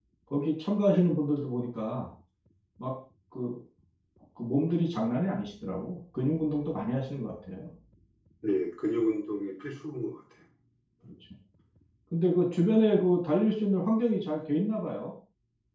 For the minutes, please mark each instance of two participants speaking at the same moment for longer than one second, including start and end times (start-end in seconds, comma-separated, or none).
none